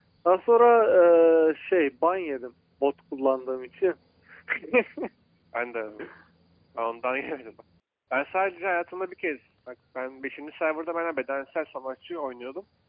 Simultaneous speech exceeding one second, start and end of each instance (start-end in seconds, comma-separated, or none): none